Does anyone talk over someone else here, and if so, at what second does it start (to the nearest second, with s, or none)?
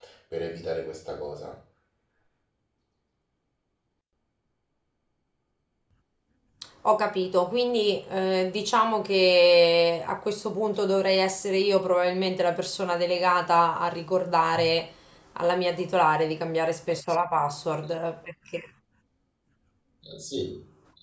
none